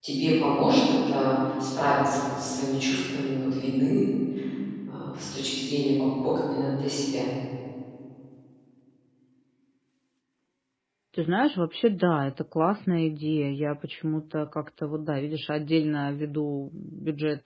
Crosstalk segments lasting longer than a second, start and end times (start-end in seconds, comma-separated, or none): none